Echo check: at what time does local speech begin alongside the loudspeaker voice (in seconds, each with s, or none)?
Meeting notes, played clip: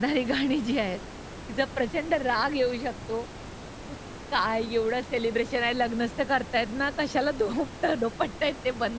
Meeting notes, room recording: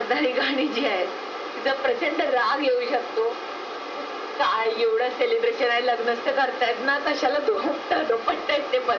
none